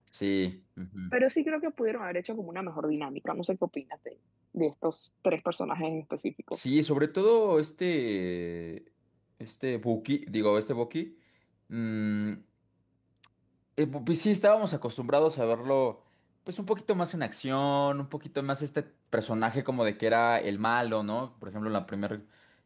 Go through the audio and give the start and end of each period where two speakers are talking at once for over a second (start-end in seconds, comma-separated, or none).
none